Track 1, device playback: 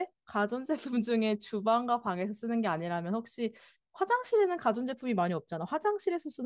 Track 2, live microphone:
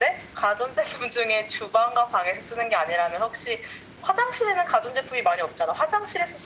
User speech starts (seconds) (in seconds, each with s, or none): none